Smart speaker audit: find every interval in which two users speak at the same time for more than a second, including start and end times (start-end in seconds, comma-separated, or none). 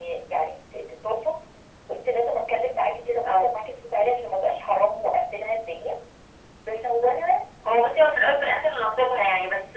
none